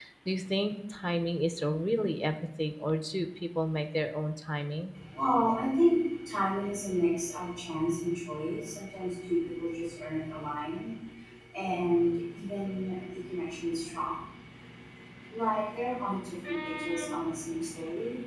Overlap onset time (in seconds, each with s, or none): none